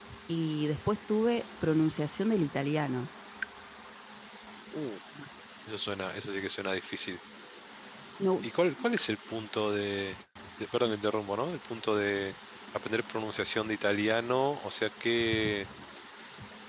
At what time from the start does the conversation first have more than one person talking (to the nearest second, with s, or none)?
none